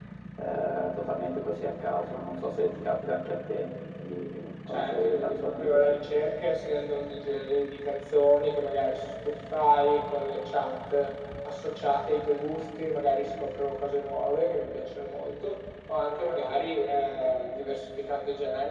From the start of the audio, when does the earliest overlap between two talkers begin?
4.7 s

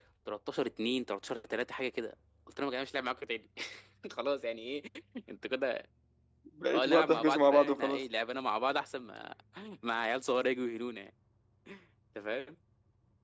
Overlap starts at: 6.7 s

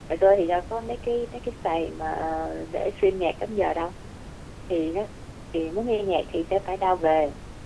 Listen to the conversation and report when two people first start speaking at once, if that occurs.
none

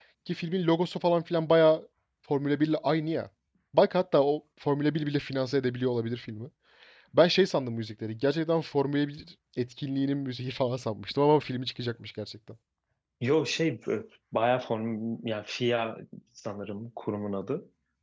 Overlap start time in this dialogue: none

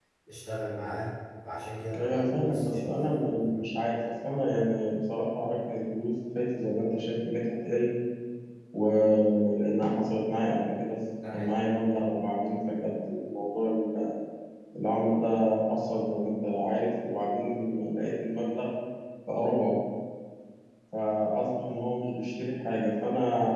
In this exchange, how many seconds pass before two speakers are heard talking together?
1.9 s

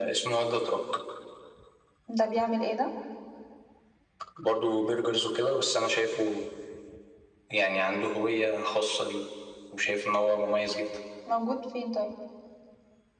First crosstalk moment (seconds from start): none

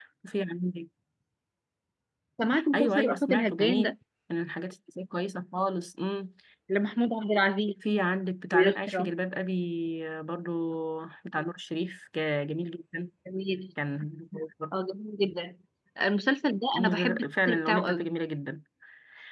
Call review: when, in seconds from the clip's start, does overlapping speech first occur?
2.7 s

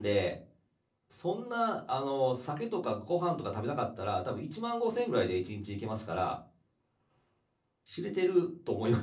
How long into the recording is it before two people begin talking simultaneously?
none

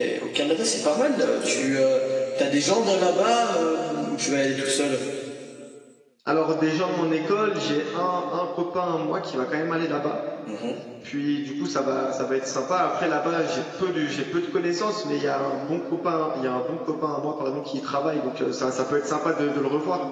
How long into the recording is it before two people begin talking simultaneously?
none

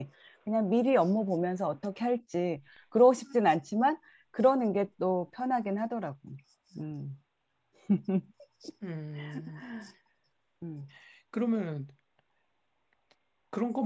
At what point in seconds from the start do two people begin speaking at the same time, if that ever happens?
none

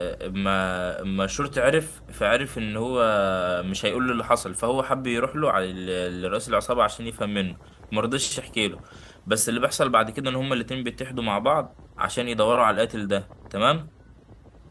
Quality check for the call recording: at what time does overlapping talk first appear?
none

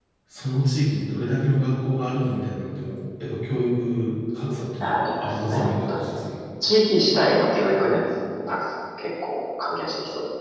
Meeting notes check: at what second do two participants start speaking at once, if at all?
4.8 s

